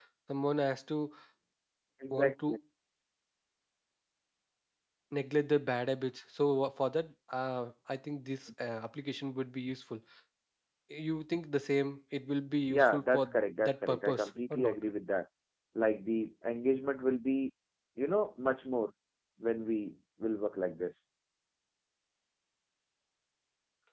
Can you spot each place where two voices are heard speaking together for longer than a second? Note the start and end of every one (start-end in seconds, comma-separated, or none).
12.7-14.8